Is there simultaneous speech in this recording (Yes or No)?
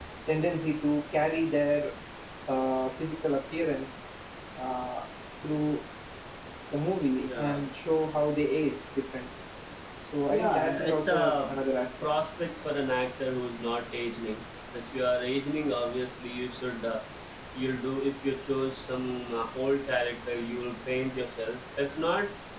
Yes